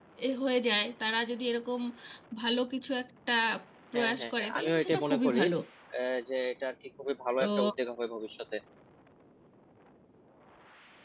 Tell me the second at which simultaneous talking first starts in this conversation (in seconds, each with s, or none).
4.0 s